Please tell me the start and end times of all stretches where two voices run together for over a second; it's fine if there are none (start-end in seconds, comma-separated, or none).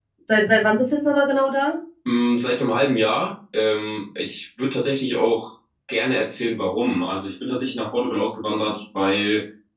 none